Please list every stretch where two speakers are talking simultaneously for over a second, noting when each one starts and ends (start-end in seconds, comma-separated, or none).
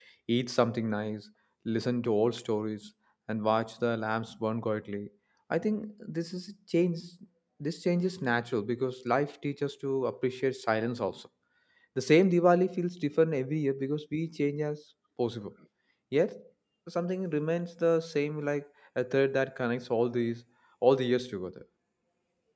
none